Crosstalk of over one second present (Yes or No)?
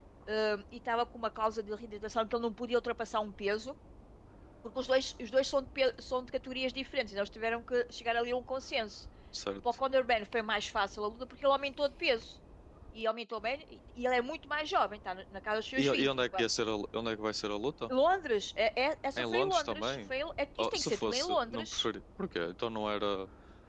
Yes